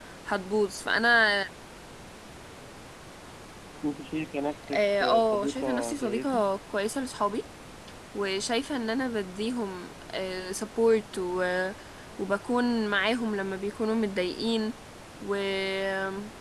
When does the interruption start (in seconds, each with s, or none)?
4.7 s